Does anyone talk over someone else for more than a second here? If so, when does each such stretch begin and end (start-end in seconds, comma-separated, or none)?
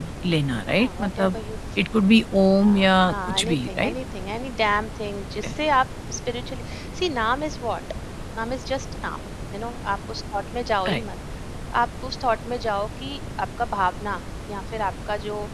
2.5-3.9